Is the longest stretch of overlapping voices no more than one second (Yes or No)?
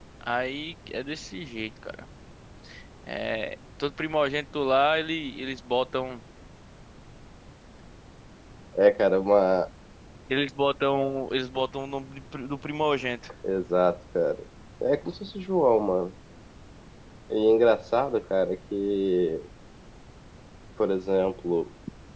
Yes